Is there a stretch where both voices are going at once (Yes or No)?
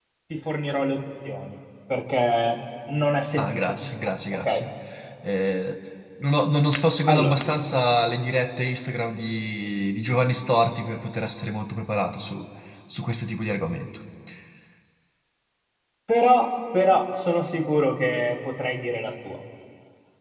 Yes